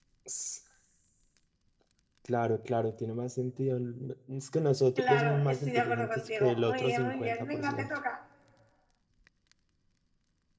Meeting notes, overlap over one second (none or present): present